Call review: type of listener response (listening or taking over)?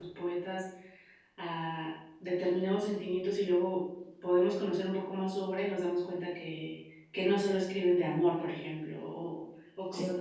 listening